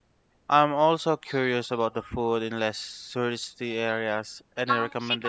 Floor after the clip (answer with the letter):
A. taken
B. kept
A